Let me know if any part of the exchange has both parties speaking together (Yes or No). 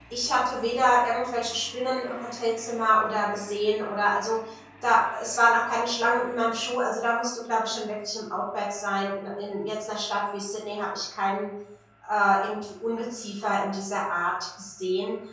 No